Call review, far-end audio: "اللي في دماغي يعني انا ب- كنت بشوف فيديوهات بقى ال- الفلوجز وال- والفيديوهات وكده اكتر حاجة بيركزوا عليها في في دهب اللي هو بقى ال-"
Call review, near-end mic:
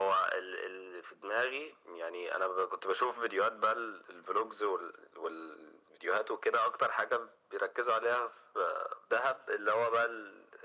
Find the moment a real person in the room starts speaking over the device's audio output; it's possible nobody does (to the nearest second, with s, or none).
none